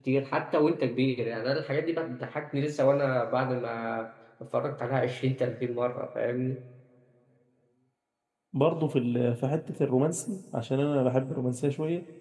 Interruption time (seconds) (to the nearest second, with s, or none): none